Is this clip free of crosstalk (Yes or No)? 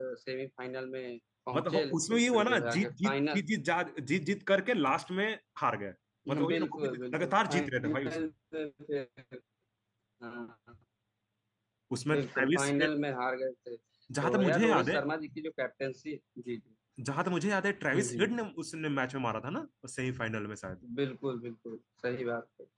No